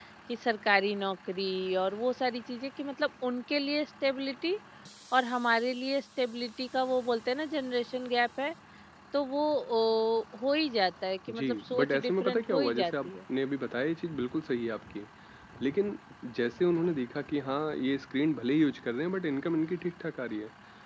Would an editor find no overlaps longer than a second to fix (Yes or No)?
No